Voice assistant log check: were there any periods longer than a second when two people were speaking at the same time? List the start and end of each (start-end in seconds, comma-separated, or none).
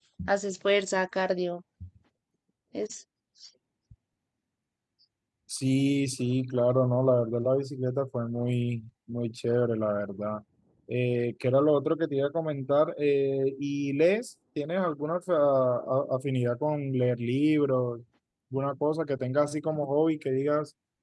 none